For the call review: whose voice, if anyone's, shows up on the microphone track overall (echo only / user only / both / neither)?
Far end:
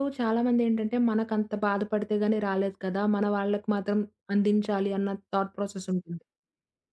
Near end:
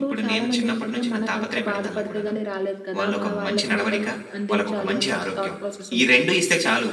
both